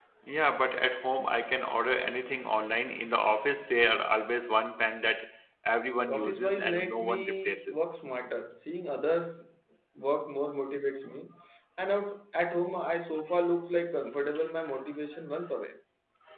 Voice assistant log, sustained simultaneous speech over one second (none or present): present